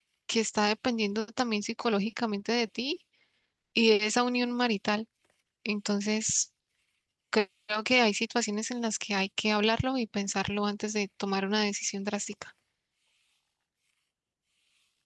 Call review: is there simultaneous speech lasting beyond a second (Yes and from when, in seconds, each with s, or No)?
No